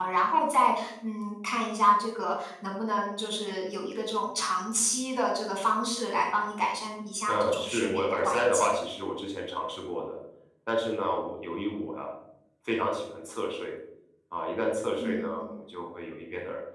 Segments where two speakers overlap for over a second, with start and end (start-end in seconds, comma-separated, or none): 7.3-8.7